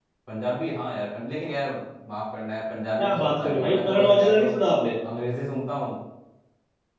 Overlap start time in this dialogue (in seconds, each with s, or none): 3.0 s